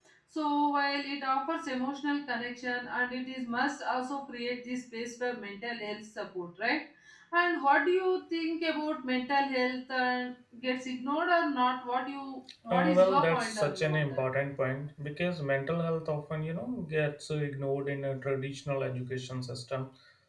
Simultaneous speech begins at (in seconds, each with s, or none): 12.7 s